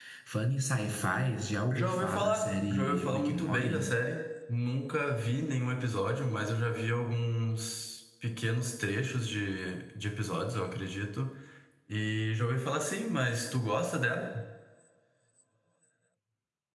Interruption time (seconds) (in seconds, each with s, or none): 1.7 s